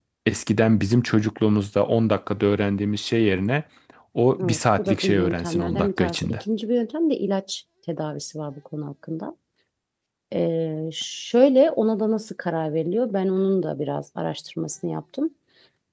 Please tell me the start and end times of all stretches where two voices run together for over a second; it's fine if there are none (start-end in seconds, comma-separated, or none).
4.4-6.4